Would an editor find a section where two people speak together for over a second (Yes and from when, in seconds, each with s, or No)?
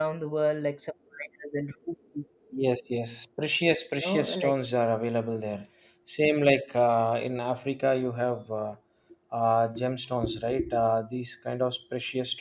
No